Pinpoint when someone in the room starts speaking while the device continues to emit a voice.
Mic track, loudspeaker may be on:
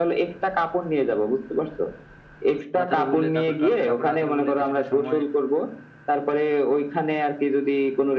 3 s

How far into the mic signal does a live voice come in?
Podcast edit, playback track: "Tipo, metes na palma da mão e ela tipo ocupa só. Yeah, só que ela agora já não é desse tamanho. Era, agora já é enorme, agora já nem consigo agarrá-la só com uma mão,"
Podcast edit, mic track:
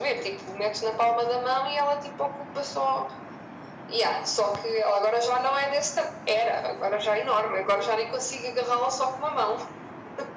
none

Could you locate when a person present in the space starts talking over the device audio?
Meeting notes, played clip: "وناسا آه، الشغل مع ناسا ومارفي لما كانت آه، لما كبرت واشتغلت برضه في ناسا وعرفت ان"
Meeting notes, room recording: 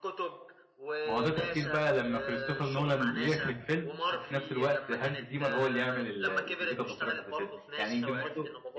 1 s

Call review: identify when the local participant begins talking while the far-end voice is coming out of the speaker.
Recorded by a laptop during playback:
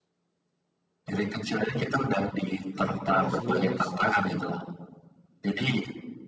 3 s

